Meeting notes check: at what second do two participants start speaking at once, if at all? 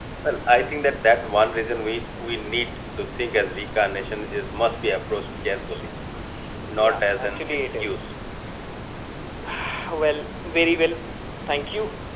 6.8 s

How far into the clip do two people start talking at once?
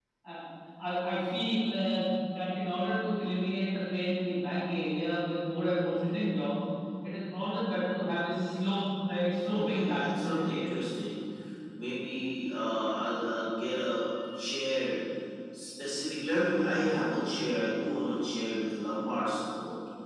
9.5 s

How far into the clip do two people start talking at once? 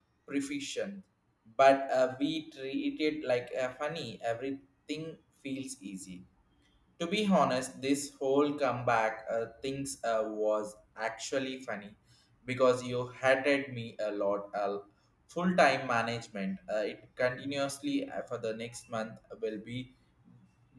none

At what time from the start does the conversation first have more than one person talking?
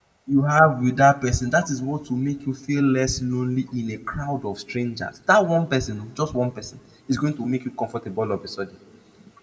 none

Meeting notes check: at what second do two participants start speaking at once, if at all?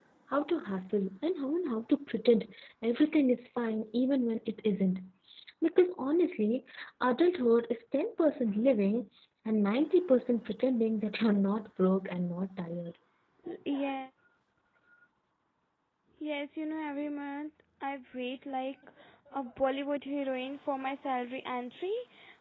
none

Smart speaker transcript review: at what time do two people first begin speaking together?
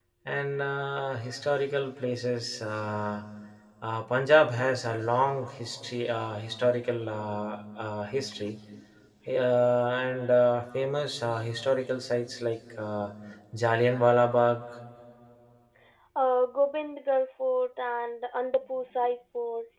none

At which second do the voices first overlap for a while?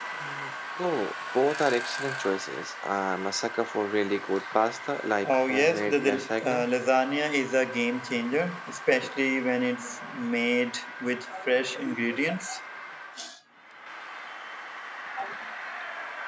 5.2 s

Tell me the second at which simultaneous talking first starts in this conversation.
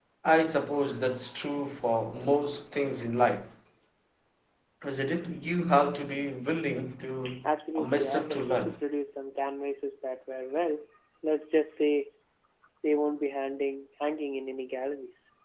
7.2 s

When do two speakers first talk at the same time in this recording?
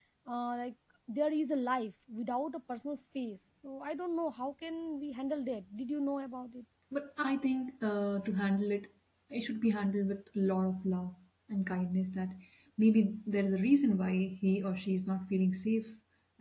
none

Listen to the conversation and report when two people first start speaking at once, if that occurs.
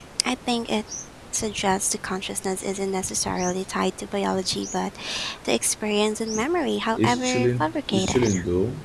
6.9 s

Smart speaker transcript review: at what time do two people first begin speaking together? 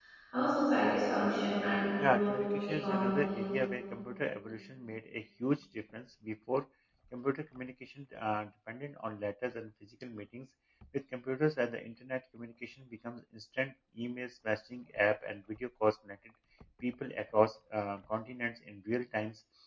2.0 s

